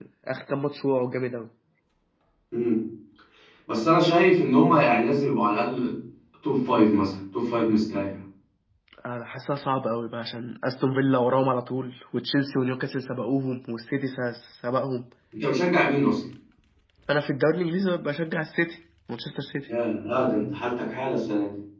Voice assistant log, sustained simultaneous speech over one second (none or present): none